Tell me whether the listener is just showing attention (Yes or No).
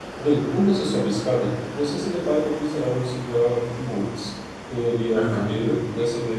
Yes